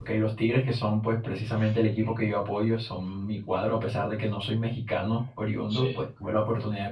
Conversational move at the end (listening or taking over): listening